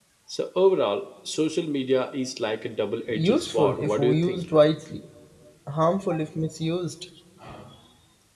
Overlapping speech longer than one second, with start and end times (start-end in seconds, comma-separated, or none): 3.1-4.4